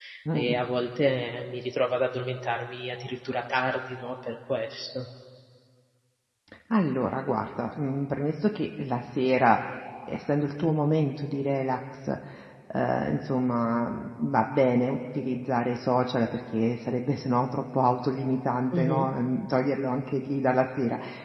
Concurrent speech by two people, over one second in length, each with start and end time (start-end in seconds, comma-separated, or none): none